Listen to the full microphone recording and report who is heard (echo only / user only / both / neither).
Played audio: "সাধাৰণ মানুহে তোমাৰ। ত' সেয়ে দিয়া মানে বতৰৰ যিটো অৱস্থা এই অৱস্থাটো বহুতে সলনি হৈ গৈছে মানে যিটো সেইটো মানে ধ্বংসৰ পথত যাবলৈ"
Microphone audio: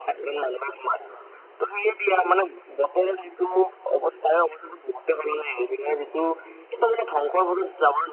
echo only